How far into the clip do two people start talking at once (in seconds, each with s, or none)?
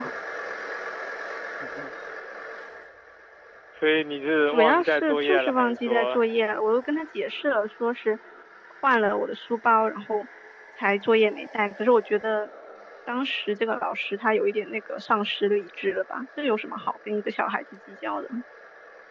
4.5 s